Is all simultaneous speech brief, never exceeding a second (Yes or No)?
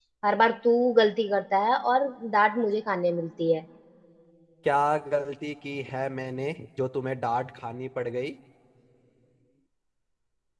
Yes